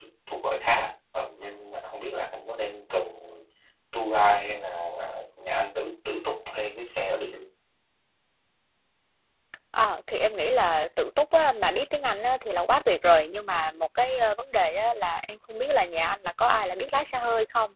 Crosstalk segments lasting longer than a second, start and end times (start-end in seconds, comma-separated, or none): none